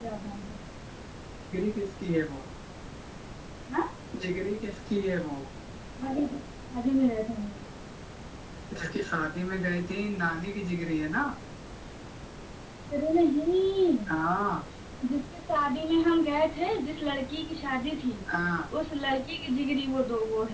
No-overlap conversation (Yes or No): Yes